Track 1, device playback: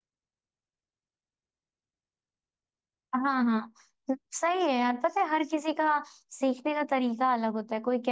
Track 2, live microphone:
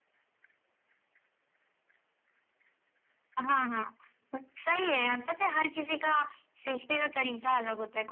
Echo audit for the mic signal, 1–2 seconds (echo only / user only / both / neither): neither